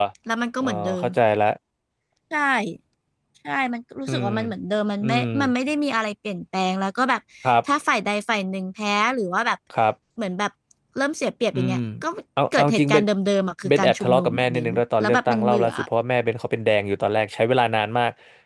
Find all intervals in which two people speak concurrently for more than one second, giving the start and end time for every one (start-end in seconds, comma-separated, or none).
13.7-15.7